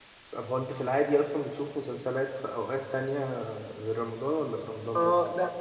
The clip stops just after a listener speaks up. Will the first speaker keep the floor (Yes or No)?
No